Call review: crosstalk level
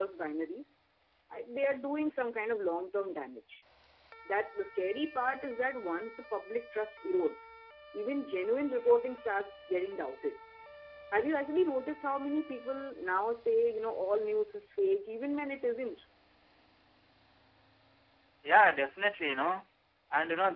none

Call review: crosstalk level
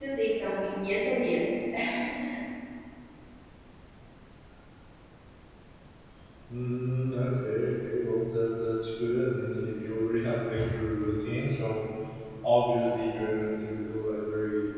none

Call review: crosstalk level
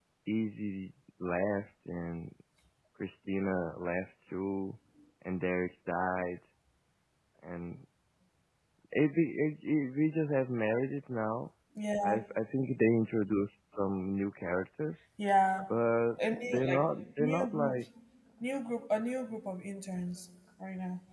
present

